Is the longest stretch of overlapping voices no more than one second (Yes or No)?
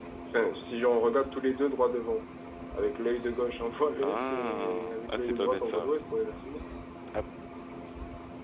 No